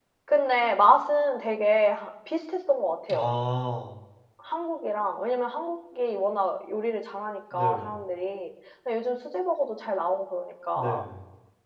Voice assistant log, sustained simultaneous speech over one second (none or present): none